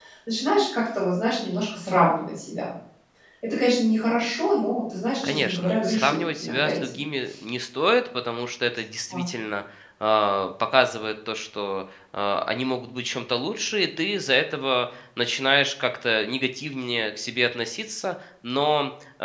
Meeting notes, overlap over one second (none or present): present